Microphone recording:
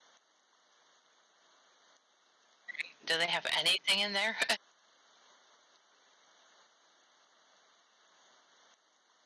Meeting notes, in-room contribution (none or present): present